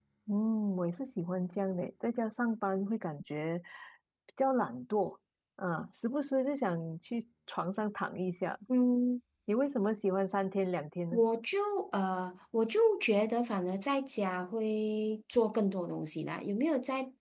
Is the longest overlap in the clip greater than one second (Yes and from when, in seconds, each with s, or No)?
No